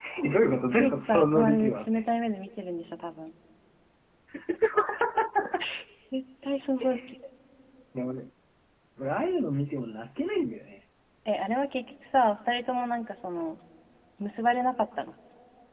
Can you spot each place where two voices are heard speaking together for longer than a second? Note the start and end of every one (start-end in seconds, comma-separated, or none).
0.8-2.0